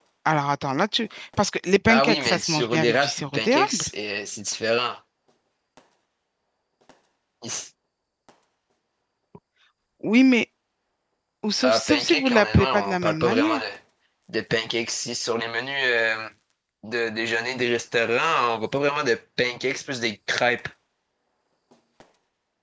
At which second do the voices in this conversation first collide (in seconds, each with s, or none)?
1.9 s